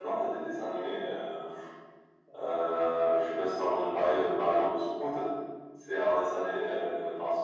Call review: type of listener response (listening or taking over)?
listening